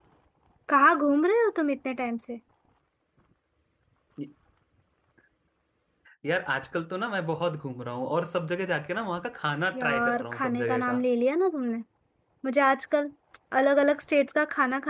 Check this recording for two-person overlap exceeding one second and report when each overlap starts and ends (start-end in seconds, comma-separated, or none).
9.8-11.0